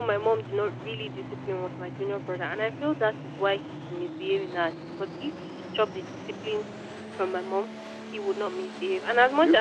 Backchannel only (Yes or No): Yes